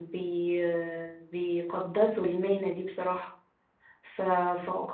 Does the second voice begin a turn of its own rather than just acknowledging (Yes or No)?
No